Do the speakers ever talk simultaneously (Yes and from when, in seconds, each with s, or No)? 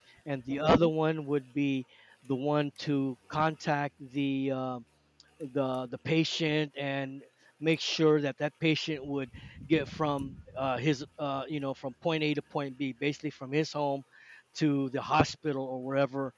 No